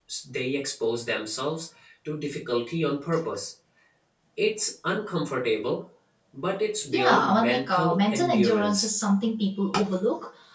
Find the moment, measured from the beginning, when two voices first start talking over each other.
6.9 s

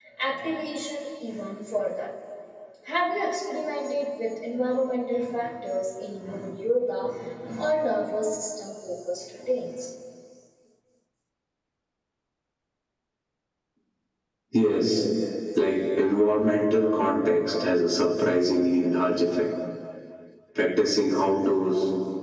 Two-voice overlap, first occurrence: none

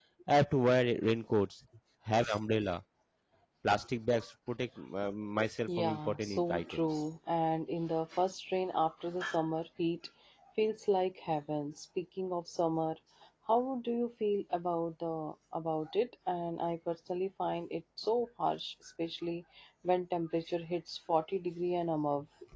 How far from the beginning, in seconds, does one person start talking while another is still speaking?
5.7 s

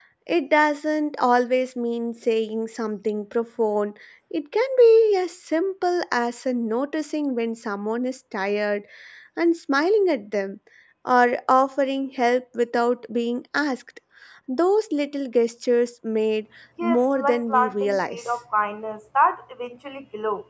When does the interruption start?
16.8 s

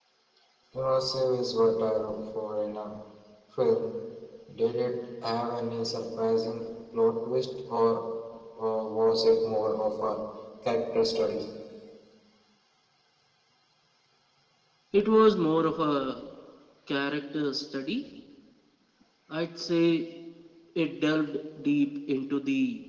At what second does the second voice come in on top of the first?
none

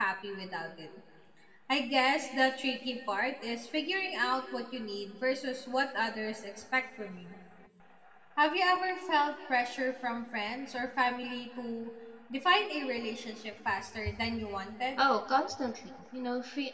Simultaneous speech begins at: none

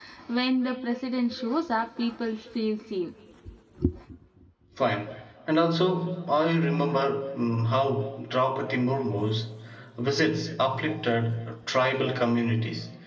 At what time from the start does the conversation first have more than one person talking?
none

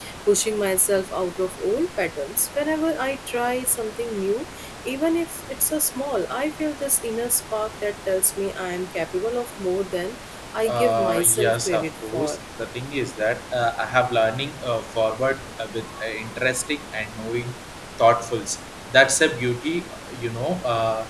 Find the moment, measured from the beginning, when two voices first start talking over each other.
10.7 s

